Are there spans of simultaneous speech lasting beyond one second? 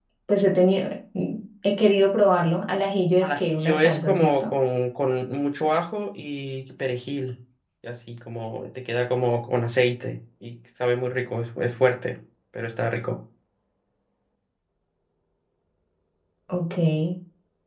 Yes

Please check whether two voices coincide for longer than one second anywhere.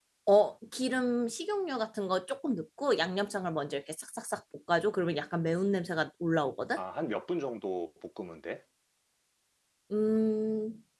No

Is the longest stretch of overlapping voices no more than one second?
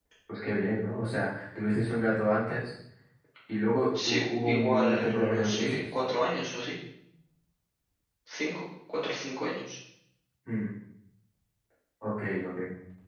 No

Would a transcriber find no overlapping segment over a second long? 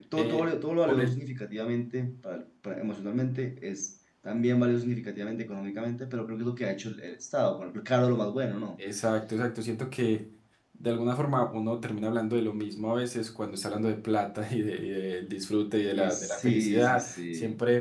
No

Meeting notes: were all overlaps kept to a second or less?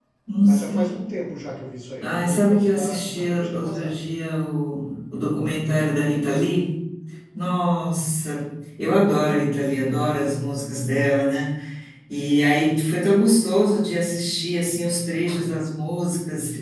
No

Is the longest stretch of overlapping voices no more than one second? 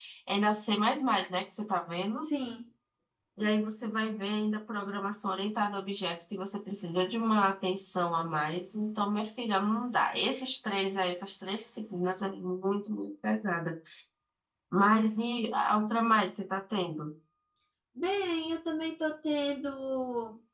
Yes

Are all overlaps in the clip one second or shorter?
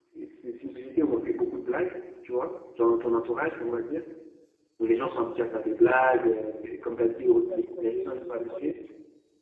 No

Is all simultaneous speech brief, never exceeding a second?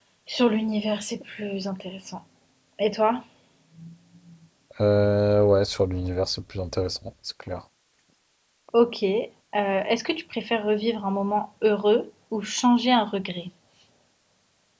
Yes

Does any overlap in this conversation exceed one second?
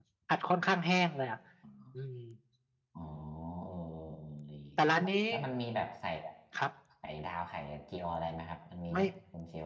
No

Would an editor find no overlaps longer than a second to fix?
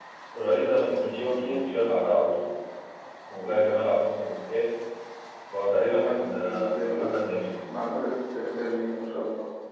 No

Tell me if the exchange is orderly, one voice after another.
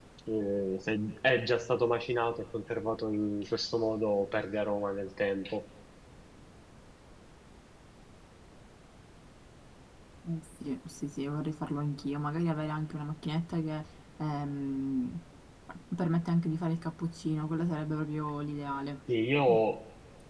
Yes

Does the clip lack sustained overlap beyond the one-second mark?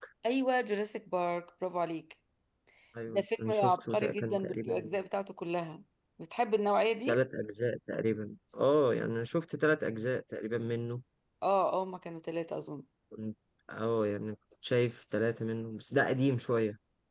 No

